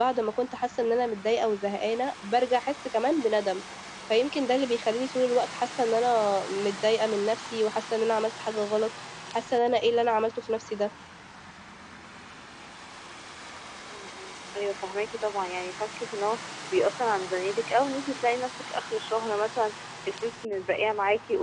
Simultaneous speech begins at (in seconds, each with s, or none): none